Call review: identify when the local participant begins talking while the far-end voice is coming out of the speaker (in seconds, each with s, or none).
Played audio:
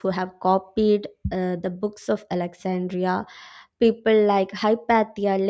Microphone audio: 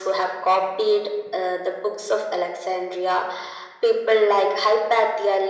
none